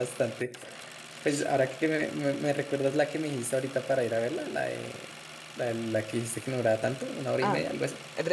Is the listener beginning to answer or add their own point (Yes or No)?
Yes